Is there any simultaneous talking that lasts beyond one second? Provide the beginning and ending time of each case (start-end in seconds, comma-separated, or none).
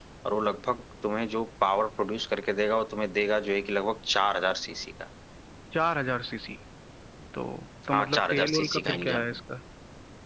7.9-9.2